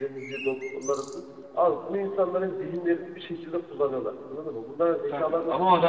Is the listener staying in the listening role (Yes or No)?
No